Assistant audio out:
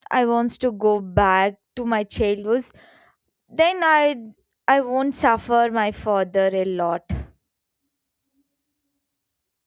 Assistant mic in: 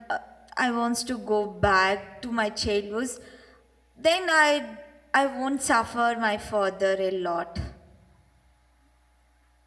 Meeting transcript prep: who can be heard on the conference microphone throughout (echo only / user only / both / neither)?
echo only